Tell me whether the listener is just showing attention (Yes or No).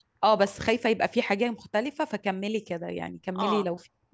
No